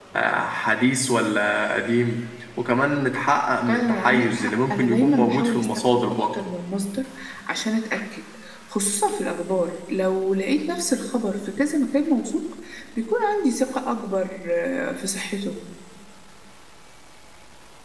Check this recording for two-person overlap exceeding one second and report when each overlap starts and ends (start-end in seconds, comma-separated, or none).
3.7-6.4